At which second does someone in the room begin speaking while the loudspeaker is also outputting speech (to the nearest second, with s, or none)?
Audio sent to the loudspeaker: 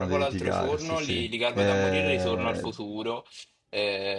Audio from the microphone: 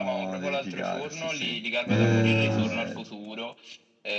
2 s